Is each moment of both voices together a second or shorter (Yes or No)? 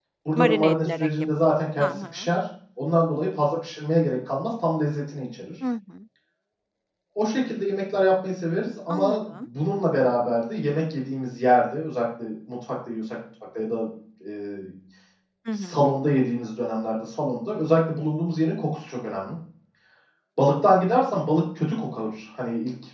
No